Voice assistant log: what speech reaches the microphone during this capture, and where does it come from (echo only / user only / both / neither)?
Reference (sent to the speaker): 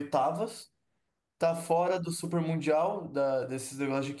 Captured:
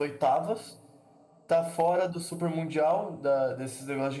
echo only